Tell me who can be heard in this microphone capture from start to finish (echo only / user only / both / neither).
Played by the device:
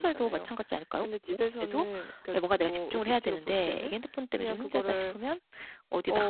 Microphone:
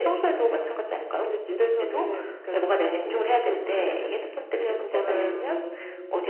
both